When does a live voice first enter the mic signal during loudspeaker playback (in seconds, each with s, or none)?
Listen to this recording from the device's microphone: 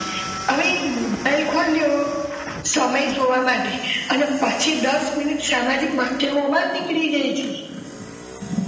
none